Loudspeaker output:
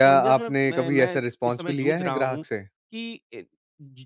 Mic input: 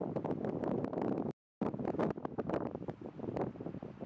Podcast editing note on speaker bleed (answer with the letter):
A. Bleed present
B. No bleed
B